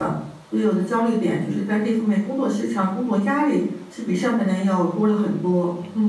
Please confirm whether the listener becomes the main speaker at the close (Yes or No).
Yes